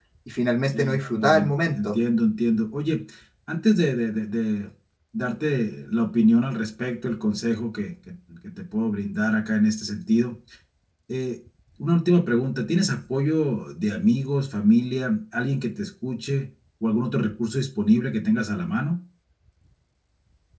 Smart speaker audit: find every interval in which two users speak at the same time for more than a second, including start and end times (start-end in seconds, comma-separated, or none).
0.7-2.0